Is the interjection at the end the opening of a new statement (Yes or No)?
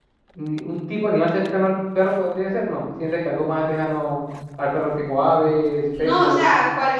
Yes